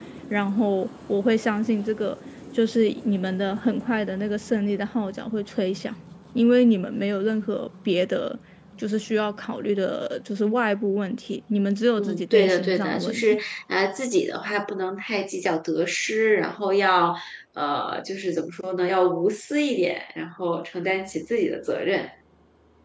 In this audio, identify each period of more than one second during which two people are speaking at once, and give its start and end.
12.0-13.4

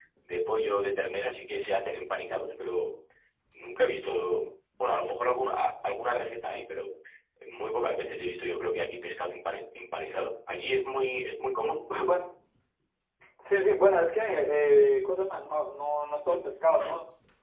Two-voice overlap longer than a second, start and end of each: none

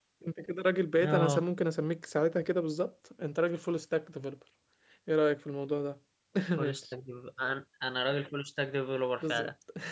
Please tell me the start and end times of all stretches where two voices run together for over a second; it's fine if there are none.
none

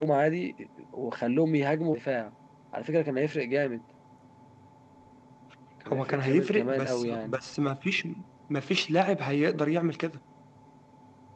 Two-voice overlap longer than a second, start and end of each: 5.9-7.4

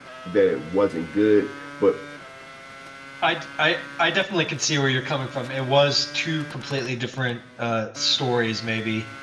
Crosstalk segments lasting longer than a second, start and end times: none

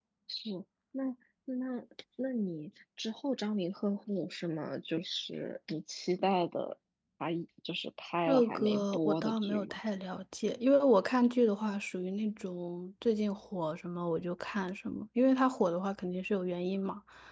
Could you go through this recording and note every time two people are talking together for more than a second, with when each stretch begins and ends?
8.3-9.8

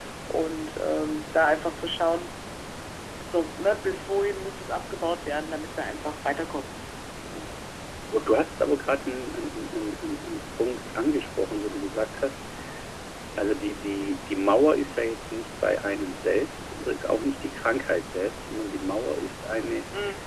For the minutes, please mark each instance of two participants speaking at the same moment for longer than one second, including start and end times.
none

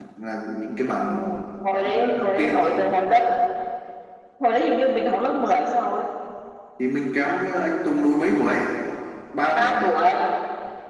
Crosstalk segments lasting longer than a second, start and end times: 1.7-2.9

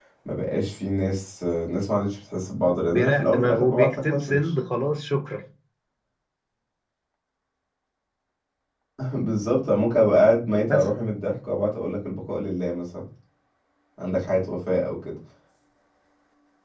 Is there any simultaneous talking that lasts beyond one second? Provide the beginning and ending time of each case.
2.9-4.4

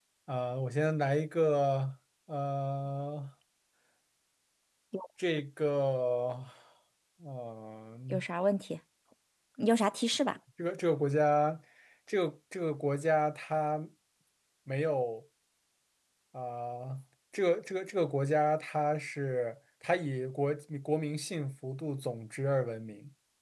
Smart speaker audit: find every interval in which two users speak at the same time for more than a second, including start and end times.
none

